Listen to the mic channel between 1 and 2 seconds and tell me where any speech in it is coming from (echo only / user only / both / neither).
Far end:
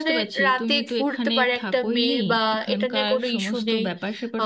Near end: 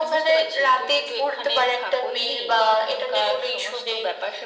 echo only